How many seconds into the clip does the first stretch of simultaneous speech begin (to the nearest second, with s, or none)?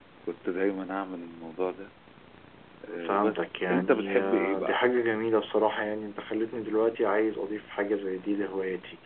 3 s